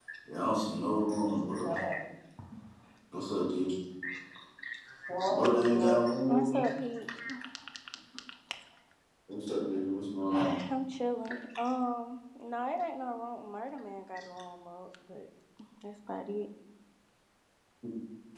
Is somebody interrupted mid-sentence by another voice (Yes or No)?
Yes